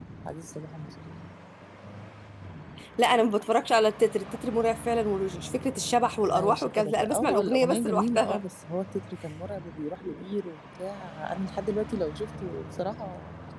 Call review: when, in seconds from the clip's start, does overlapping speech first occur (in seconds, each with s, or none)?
6.3 s